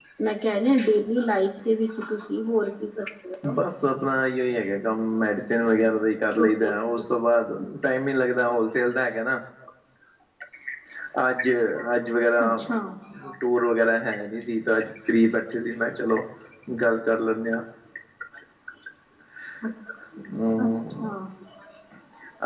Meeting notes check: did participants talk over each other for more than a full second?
No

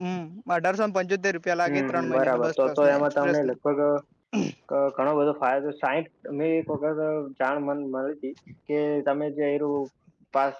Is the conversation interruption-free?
No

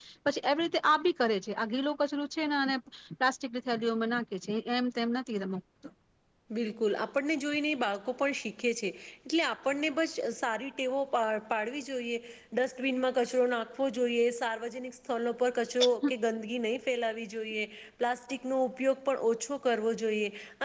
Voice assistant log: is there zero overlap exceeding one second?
Yes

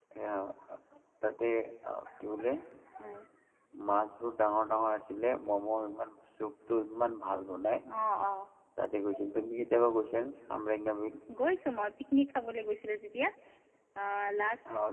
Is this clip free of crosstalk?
Yes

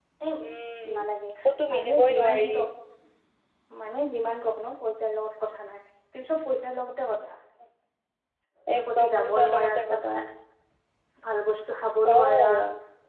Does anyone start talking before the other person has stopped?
Yes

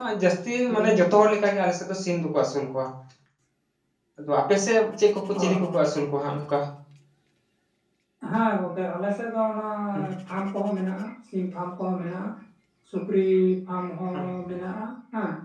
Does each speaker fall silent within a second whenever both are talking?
Yes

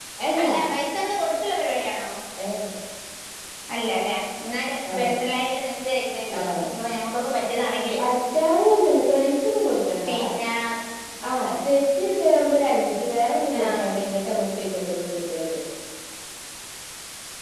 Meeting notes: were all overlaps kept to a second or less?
Yes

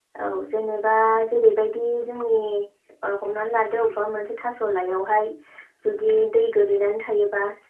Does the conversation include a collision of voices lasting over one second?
No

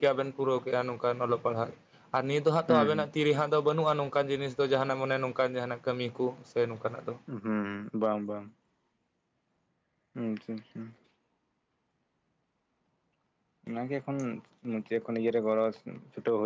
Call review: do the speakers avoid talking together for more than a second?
Yes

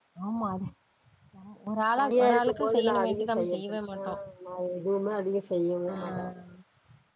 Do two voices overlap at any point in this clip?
Yes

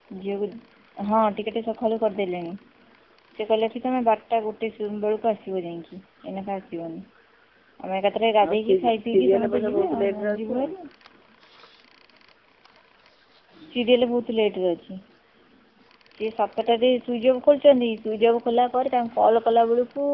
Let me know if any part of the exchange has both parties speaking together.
Yes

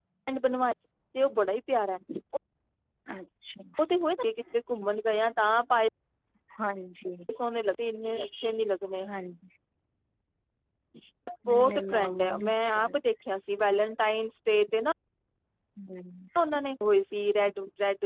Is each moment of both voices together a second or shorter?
No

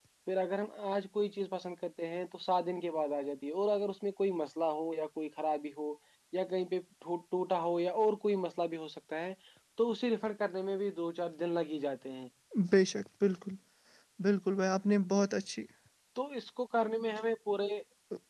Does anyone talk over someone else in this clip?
No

